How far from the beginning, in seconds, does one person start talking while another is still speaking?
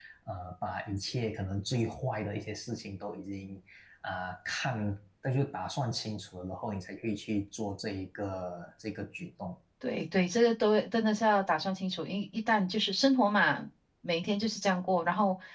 none

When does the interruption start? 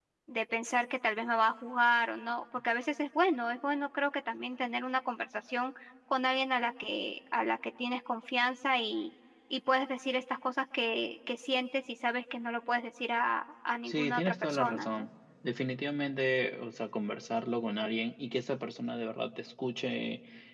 13.8 s

